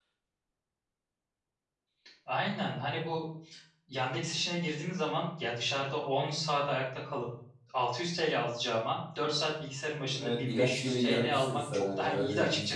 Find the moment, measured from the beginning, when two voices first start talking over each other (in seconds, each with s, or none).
10.0 s